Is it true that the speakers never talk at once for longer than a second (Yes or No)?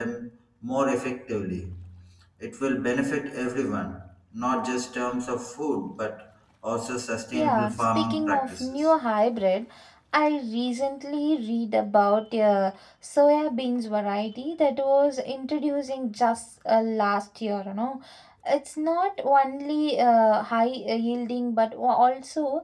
No